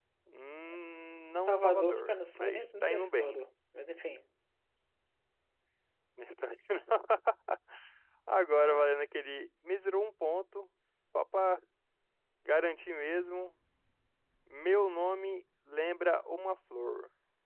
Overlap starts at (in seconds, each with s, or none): 1.4 s